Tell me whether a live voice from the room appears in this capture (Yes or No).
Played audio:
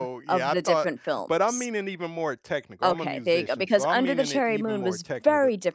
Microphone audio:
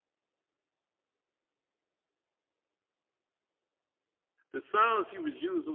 Yes